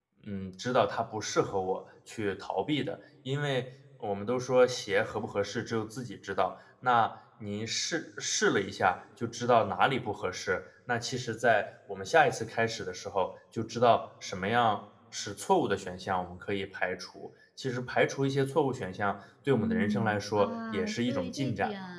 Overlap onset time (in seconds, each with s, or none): 19.5 s